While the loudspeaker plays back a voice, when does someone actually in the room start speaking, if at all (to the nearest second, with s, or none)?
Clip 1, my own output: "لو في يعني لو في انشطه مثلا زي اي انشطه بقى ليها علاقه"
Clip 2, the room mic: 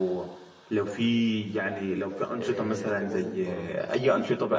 2 s